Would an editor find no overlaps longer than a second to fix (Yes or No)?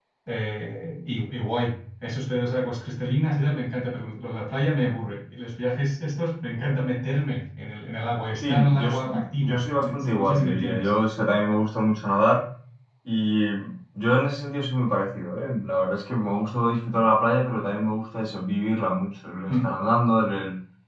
No